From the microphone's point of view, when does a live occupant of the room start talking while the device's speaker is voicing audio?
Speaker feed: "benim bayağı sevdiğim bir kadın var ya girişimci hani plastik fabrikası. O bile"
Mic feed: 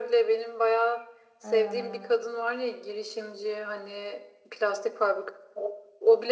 1.4 s

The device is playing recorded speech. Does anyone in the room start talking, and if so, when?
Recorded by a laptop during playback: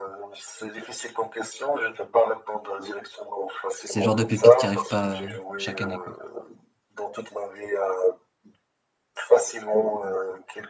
3.8 s

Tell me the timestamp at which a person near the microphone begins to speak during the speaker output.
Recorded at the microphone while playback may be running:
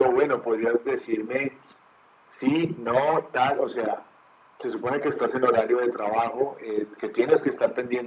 none

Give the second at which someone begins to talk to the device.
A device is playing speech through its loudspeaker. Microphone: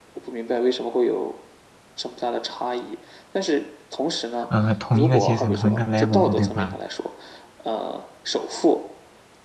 4.5 s

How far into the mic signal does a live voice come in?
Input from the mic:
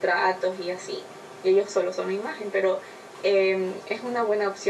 none

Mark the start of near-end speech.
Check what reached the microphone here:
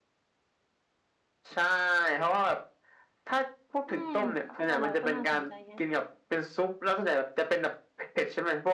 3.9 s

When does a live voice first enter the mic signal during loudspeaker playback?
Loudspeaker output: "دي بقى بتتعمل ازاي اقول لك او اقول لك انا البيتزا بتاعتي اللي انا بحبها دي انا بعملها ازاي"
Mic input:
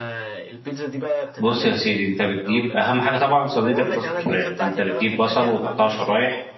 1.4 s

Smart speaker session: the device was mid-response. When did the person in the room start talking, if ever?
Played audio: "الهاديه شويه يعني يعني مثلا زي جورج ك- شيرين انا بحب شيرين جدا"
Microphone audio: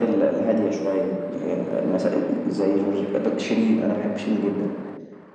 none

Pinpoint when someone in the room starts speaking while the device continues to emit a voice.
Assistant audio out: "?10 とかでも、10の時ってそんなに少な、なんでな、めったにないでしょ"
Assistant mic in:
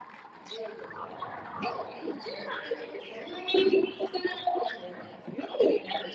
none

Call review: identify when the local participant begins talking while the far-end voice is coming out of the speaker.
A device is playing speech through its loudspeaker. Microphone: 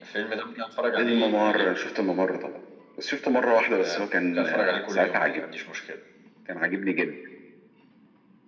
none

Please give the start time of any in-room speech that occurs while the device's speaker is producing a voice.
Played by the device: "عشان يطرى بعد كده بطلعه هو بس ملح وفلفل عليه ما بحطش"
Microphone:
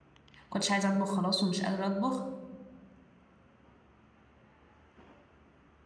0.5 s

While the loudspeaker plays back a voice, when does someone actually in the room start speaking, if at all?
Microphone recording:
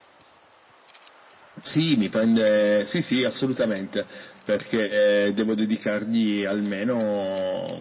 none

